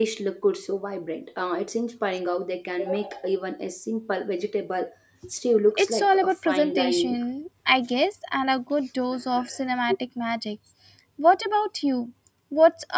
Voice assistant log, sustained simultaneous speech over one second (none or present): present